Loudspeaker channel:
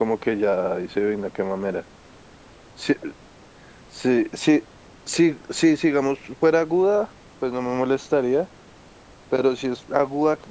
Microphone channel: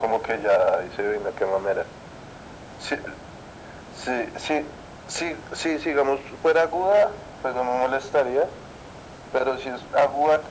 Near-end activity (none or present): none